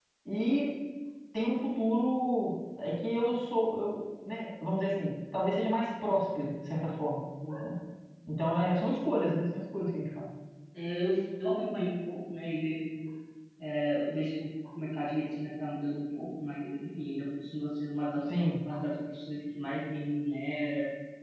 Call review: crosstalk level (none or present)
none